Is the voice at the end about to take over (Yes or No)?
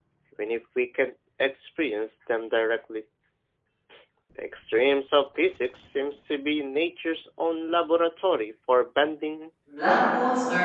Yes